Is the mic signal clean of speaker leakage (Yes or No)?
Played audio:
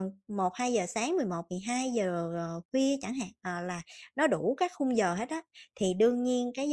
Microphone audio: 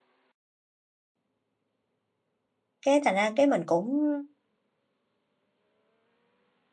Yes